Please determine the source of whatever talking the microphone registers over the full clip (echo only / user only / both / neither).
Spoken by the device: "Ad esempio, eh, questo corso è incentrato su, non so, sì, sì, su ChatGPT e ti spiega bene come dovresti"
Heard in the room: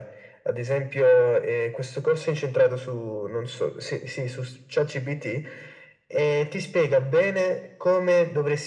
echo only